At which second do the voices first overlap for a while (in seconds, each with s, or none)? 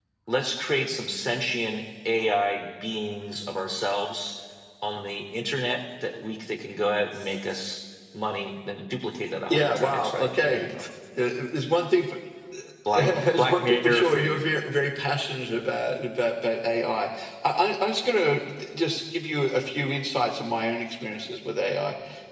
9.5 s